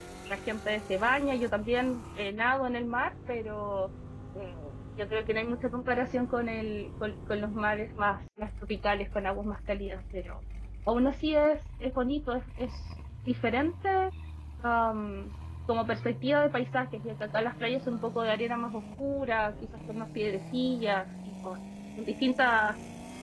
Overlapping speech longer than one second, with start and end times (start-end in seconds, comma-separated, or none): none